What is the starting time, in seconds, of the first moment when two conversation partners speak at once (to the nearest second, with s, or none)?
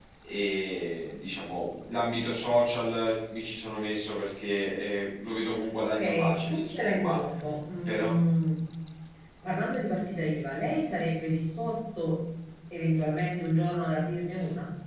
6 s